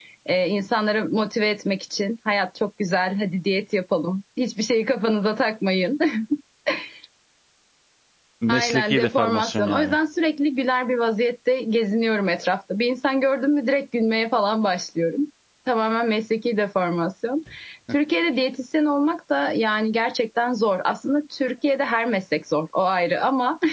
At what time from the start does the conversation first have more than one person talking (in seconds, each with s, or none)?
8.5 s